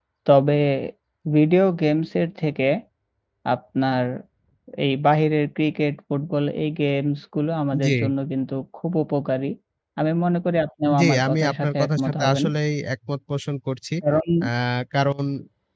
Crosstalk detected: Yes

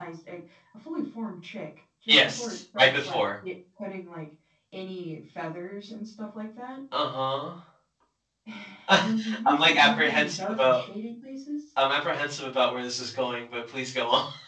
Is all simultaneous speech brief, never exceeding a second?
No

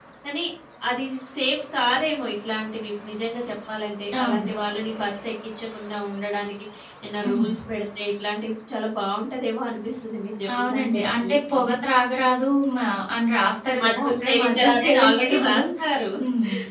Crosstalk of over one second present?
Yes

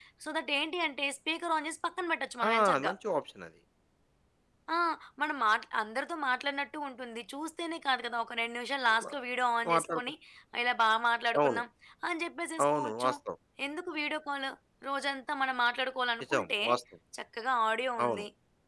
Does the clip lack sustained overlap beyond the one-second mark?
Yes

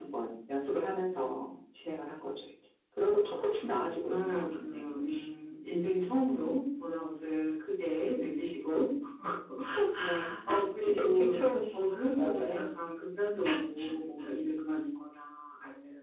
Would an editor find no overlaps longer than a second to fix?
No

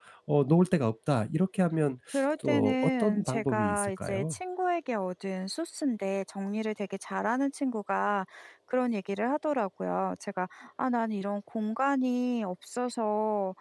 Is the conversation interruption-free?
No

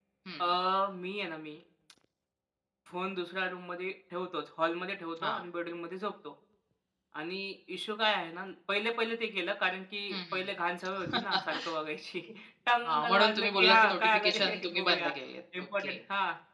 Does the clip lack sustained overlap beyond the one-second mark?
No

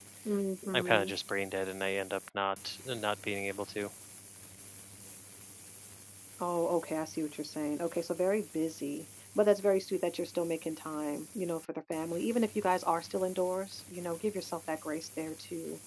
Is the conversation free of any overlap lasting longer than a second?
Yes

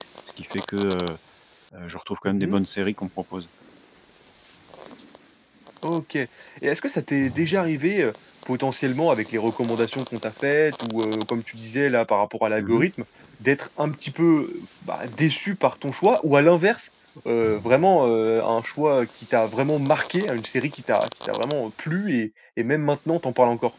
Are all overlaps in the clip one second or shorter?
Yes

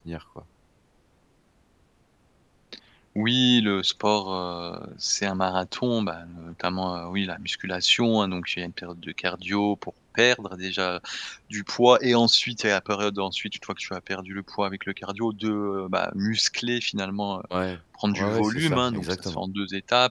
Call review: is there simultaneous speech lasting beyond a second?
Yes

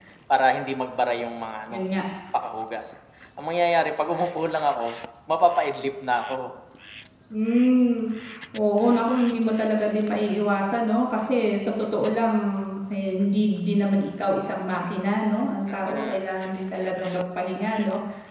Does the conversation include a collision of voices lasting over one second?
No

